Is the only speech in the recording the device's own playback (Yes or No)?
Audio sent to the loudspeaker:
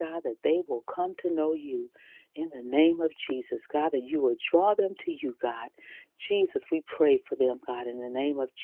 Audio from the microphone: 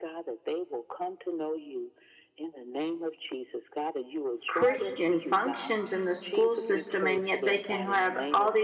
No